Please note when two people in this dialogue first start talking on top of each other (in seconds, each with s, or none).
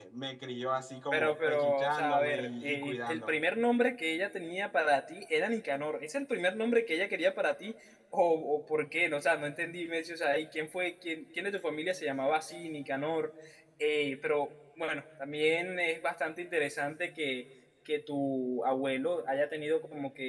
1.1 s